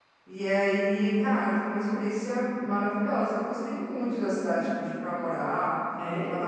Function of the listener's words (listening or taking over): listening